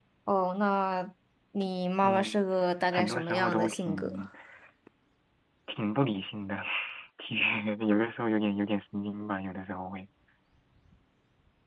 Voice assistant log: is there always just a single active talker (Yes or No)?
No